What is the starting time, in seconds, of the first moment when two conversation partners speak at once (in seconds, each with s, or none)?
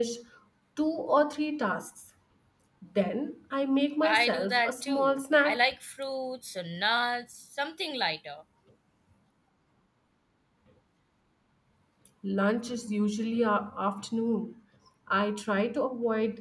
4.0 s